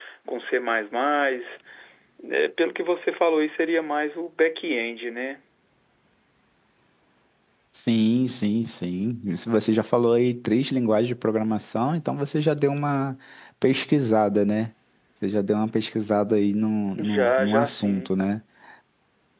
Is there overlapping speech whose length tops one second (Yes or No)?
Yes